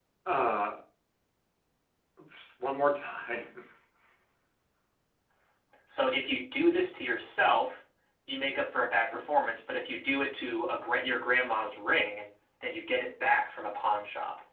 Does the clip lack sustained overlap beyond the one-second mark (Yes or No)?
Yes